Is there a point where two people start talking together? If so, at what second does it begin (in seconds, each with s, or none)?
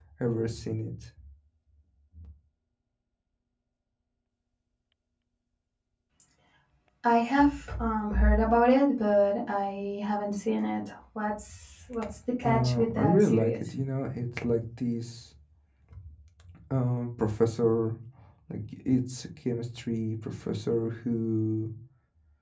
12.4 s